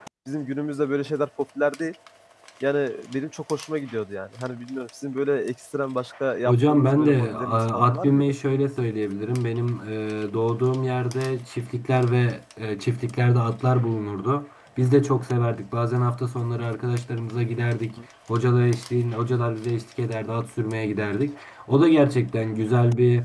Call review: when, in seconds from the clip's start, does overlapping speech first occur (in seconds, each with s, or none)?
6.5 s